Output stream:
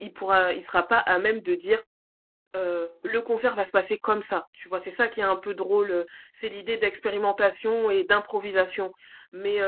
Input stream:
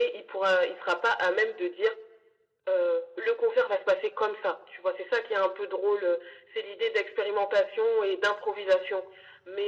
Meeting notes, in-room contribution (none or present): none